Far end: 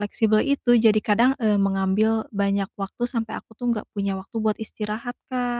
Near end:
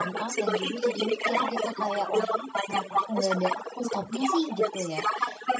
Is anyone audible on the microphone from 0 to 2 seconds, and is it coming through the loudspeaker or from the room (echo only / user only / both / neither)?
both